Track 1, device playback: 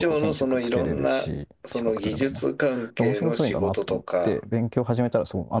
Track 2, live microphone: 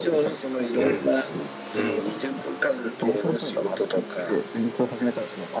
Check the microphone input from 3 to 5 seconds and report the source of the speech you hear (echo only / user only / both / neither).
echo only